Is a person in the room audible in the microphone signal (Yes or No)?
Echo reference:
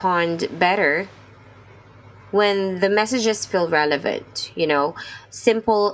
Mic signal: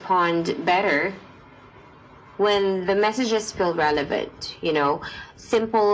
No